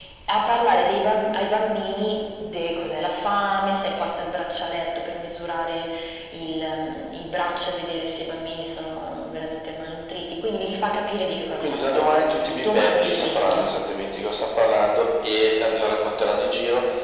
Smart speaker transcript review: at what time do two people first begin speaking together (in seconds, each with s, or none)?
11.6 s